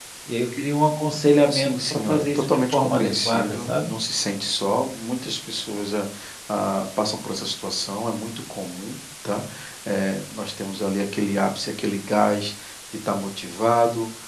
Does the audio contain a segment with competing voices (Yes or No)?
Yes